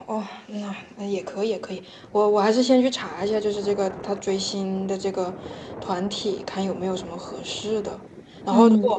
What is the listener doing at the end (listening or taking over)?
listening